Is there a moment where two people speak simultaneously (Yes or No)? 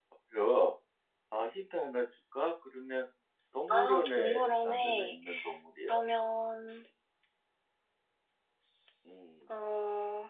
Yes